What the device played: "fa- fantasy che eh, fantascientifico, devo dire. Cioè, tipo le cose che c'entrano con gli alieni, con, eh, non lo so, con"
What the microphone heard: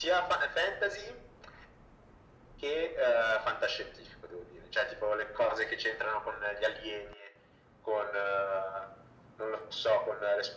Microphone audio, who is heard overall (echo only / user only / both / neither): echo only